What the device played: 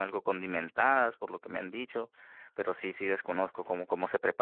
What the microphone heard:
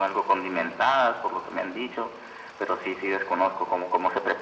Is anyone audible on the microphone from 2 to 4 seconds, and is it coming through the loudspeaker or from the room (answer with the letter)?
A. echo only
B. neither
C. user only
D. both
A